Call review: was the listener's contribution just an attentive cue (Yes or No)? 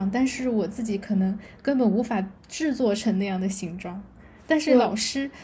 Yes